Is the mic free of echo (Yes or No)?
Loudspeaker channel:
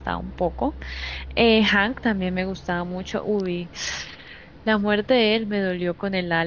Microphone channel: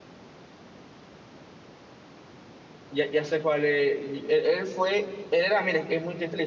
Yes